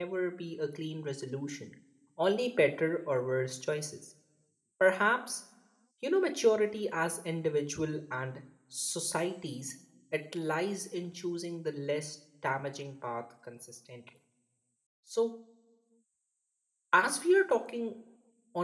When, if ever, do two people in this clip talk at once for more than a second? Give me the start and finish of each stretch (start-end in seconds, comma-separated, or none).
none